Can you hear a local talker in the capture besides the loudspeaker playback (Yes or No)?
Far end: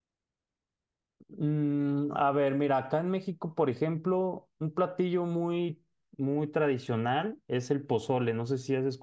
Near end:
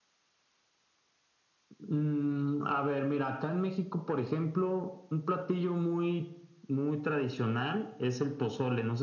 No